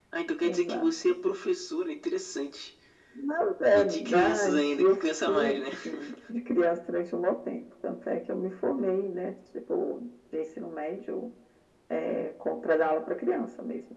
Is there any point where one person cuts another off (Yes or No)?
Yes